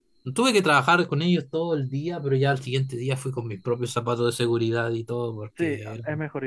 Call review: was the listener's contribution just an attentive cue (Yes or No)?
No